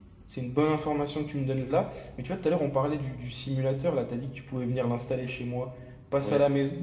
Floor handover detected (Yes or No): No